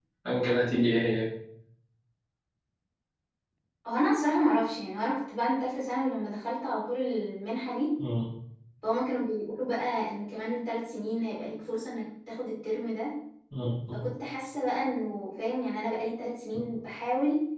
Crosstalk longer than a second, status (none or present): none